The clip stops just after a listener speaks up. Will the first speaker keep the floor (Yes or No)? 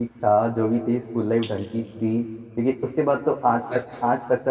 Yes